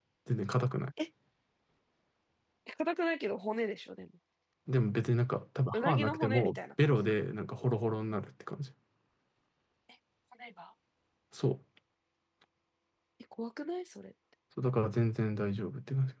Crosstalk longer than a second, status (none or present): present